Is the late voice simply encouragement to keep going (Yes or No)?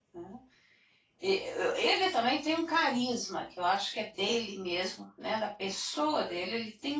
Yes